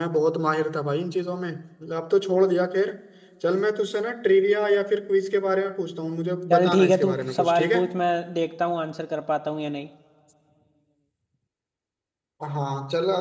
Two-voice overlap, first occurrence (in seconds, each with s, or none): 6.5 s